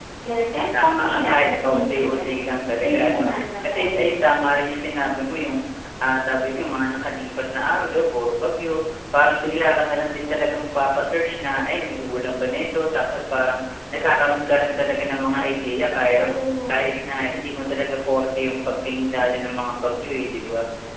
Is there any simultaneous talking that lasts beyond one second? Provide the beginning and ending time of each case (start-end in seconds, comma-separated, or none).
0.8-2.3